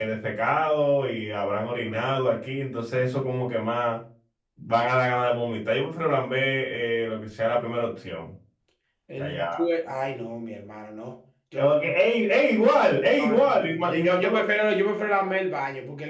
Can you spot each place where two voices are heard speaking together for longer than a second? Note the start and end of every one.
13.2-14.4

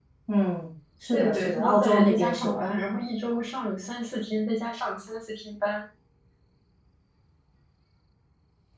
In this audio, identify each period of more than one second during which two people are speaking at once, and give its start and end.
1.1-2.6

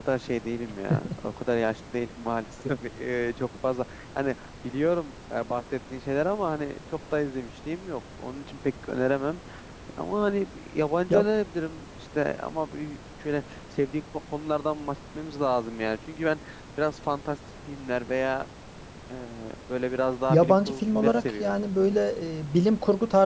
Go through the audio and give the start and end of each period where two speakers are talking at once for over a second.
20.3-21.6

